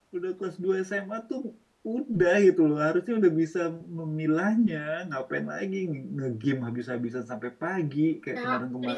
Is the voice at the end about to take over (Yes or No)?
Yes